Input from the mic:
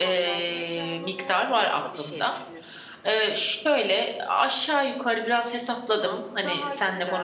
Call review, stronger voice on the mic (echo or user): user